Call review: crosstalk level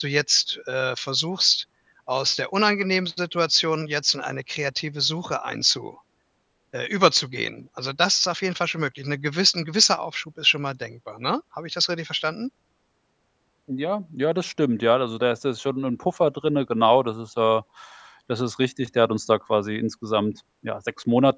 none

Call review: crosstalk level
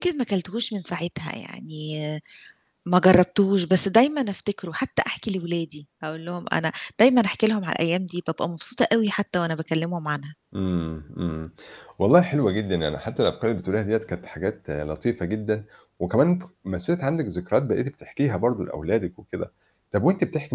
none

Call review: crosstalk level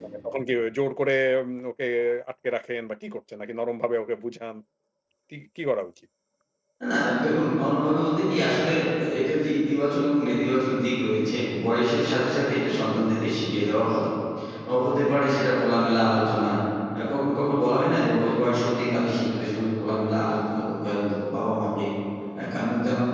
none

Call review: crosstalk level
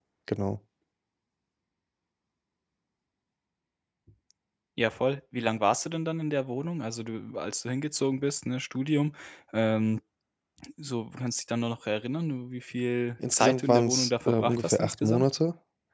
present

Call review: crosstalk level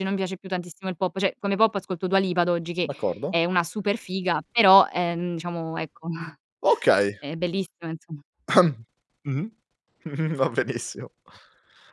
none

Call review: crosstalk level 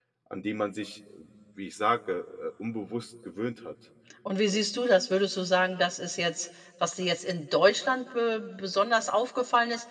none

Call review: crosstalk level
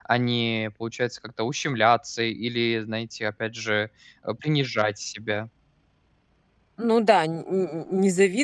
none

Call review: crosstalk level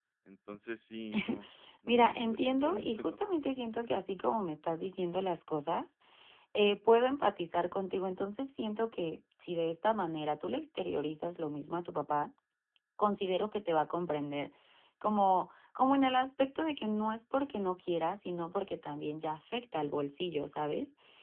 present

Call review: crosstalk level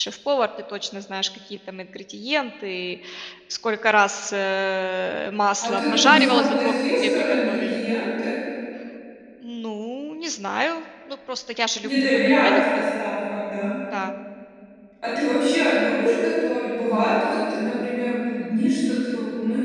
present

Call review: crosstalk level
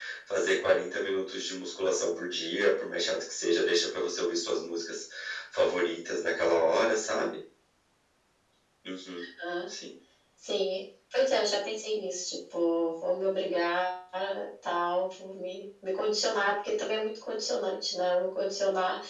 none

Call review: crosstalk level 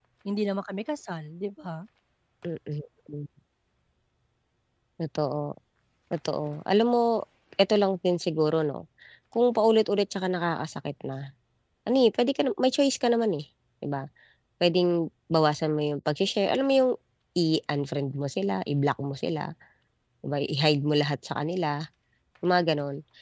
none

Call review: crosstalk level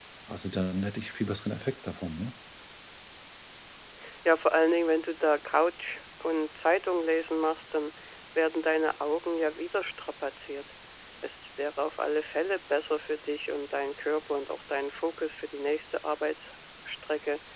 none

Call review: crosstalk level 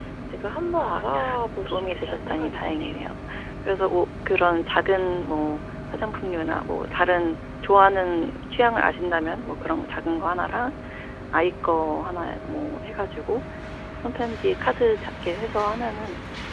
present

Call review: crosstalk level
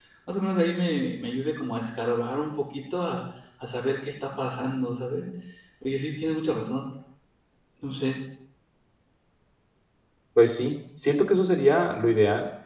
none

